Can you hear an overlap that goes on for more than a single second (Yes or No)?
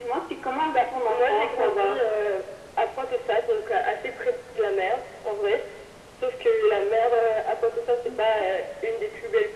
Yes